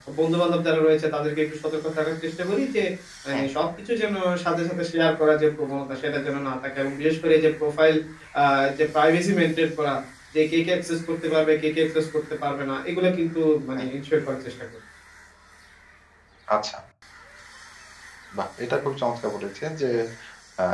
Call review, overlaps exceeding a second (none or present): none